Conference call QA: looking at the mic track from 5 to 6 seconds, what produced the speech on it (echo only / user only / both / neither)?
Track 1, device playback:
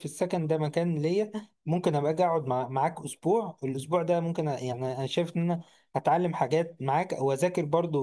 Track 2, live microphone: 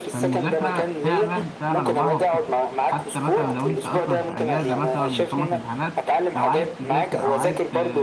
both